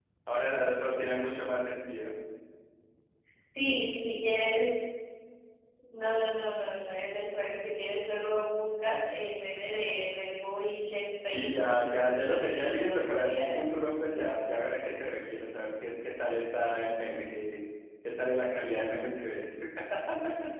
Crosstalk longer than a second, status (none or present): present